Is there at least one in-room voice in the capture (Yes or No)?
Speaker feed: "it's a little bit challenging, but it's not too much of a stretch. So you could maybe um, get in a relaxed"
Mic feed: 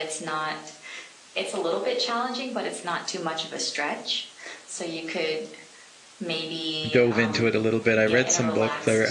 Yes